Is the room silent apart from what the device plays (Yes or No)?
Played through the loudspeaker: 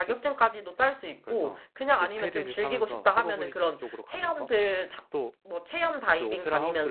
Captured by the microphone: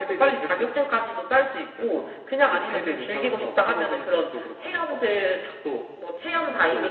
Yes